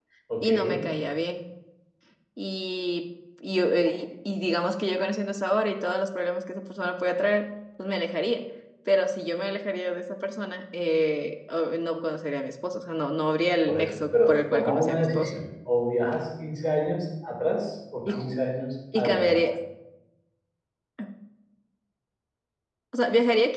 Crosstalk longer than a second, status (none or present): present